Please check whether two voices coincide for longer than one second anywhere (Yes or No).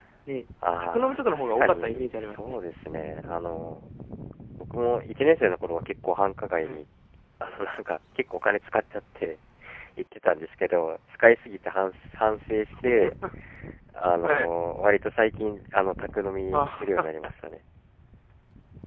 Yes